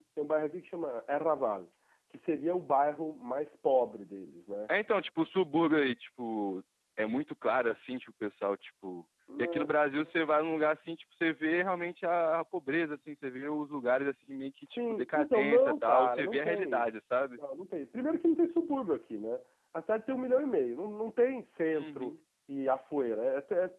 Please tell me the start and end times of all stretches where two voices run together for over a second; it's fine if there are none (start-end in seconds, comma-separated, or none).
14.8-16.8